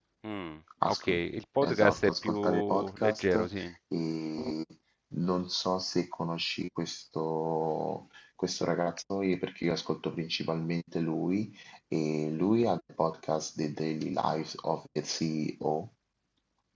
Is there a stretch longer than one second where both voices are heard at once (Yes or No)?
Yes